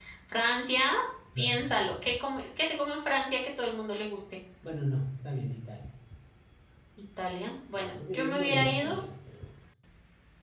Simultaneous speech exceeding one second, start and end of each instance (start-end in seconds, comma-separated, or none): 7.7-9.0